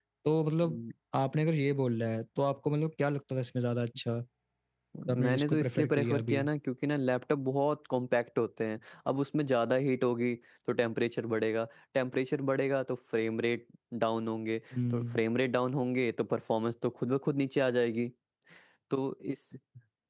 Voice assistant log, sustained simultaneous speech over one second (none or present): present